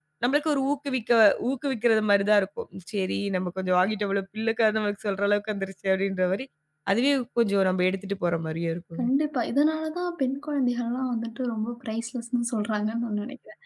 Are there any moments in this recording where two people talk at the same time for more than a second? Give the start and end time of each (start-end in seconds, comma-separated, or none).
none